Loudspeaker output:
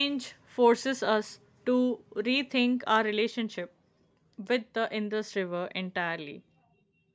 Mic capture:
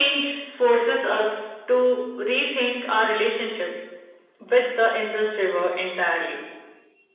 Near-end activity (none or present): none